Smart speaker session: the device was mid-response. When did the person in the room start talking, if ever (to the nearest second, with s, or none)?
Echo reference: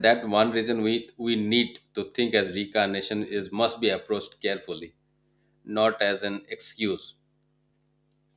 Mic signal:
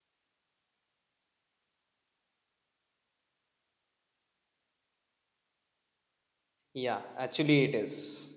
7 s